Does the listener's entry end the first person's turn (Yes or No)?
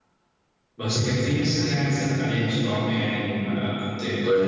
No